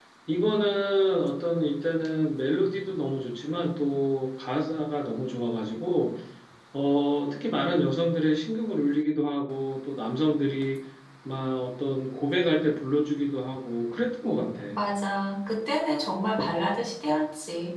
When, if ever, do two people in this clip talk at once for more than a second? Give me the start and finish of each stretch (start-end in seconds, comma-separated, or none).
none